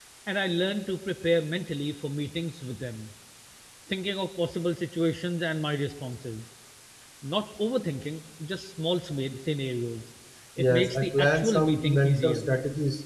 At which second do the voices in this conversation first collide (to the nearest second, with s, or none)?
11 s